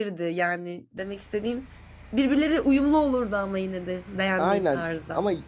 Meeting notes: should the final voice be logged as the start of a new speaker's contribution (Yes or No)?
Yes